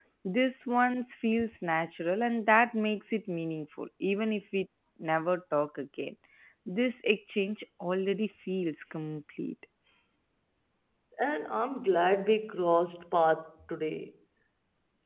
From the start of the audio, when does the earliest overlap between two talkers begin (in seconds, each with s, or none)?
none